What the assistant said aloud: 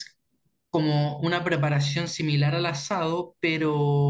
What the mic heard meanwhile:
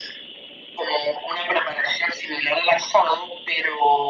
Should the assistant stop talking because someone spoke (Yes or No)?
No